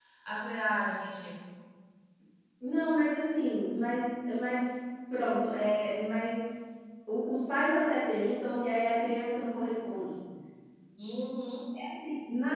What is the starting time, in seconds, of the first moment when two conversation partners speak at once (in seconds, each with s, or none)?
none